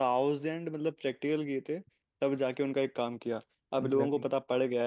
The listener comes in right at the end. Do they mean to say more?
No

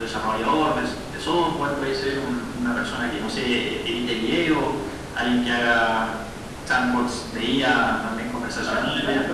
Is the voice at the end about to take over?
No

